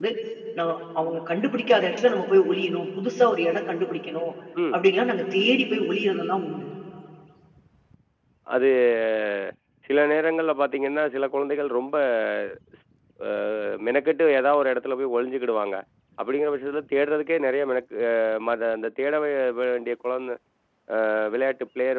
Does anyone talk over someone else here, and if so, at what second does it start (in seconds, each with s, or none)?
none